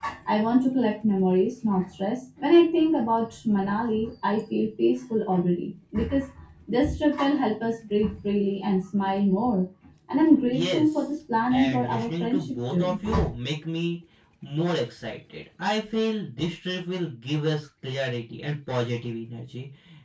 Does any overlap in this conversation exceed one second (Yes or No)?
Yes